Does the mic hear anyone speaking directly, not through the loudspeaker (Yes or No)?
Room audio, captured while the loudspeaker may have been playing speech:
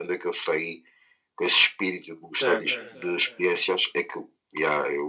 Yes